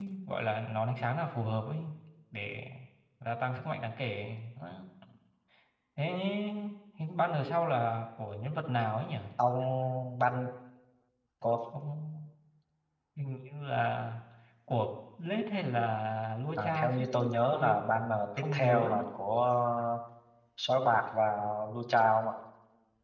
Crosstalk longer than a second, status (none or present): present